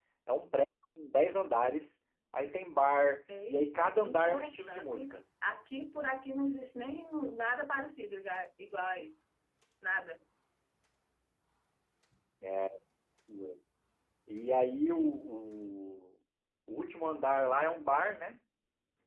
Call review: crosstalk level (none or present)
present